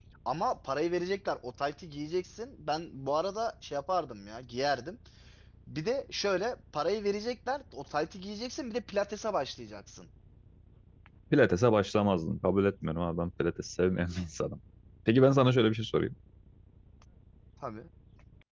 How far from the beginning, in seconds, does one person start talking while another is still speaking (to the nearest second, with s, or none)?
none